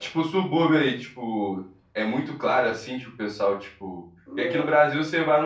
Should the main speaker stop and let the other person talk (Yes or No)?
No